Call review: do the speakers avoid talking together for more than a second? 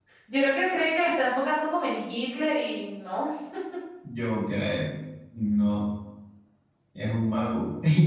Yes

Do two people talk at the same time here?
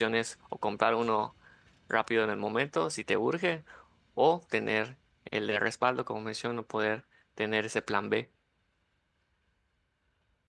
No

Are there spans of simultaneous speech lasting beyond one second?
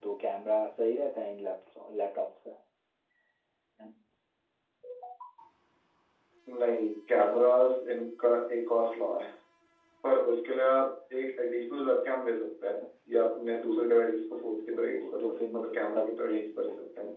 Yes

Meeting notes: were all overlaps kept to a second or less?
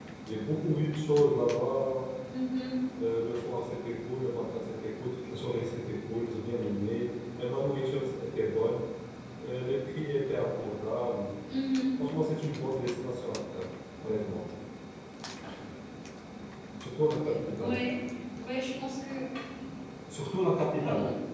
Yes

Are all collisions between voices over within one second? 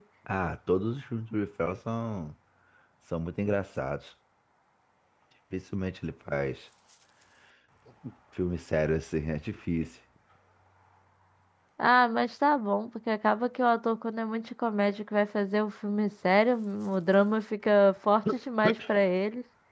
Yes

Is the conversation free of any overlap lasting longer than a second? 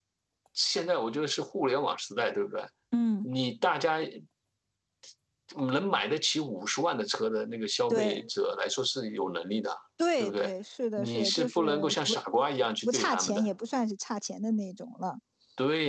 No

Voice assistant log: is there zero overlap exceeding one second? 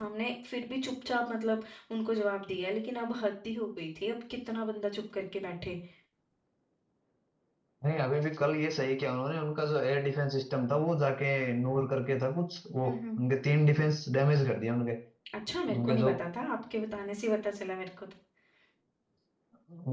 Yes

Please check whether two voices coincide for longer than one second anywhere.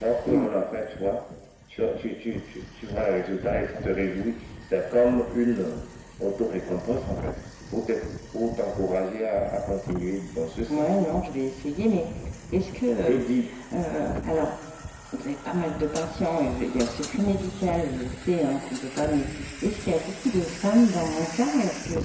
No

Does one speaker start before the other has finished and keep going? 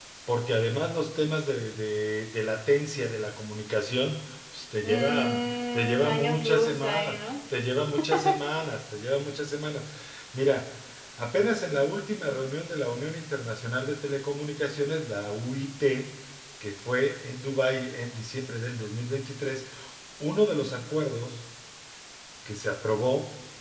Yes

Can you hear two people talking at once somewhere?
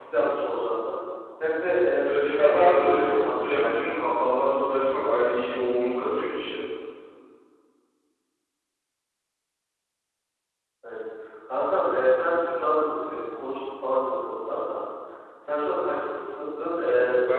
Yes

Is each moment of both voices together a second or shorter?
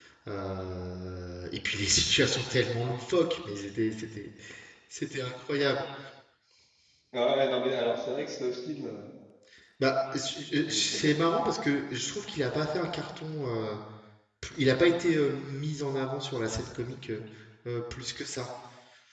Yes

